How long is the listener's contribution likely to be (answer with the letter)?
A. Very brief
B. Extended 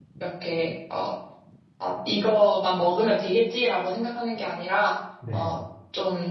A